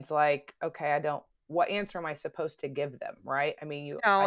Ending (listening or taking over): taking over